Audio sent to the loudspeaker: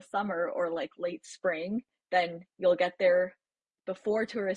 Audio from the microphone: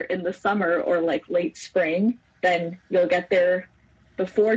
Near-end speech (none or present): none